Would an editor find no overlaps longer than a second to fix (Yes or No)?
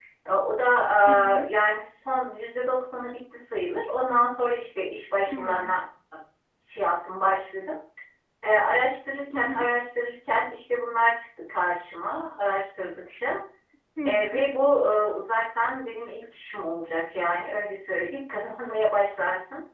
Yes